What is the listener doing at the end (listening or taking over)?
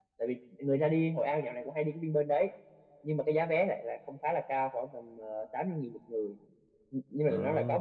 listening